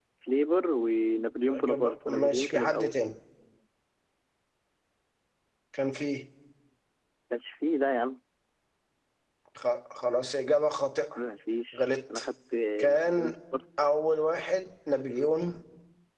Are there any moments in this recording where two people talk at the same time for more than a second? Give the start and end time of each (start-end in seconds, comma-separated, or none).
1.4-2.9